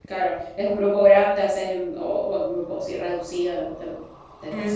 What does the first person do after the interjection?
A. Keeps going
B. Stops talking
B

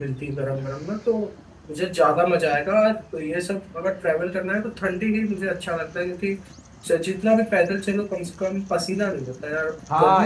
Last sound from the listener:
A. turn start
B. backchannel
A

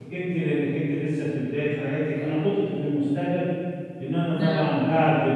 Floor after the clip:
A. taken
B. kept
B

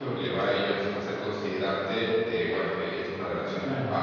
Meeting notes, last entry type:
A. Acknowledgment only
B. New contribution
B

